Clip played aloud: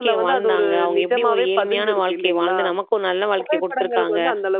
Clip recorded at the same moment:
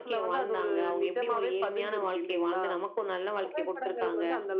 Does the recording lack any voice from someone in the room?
Yes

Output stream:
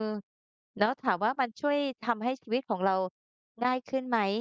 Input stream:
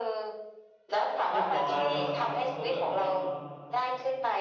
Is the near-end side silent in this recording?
No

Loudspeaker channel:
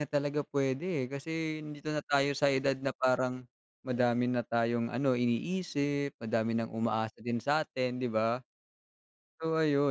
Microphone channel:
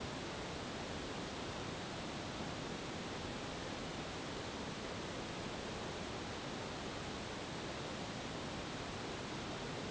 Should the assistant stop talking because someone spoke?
No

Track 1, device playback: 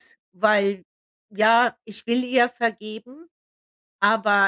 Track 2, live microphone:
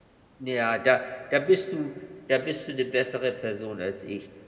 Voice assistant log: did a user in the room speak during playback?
Yes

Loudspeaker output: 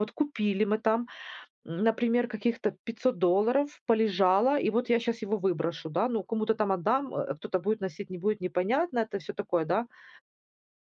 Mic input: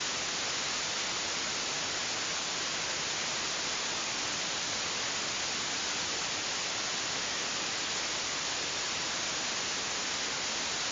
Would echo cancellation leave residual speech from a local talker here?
No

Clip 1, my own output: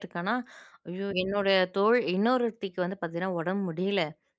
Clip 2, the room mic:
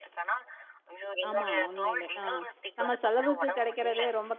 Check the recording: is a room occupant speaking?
Yes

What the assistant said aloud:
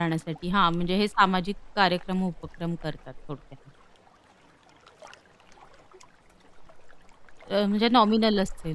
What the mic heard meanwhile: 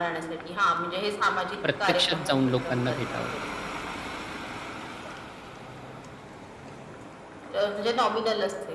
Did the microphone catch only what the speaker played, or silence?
No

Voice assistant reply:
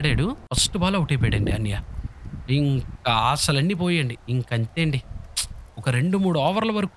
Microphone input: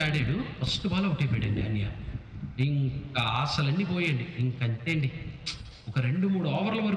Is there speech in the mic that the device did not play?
No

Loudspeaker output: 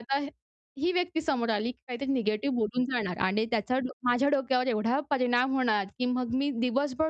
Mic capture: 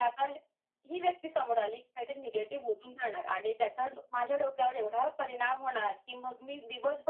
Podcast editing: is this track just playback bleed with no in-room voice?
Yes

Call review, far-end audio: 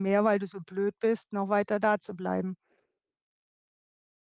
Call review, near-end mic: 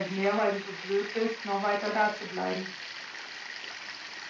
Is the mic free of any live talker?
Yes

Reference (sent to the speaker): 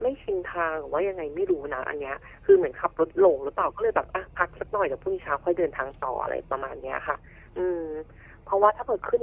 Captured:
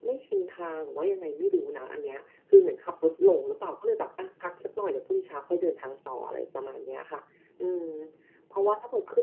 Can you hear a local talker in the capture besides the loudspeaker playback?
No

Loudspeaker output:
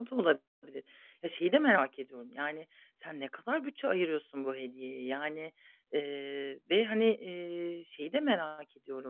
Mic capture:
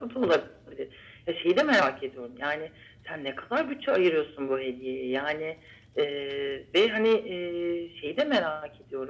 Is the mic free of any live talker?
Yes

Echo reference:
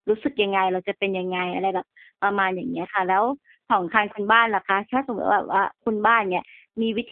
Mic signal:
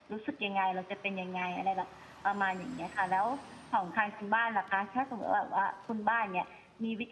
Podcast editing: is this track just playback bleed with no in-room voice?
Yes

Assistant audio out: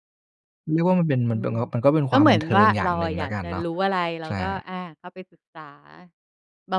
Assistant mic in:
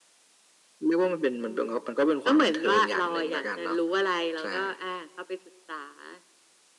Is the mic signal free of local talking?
Yes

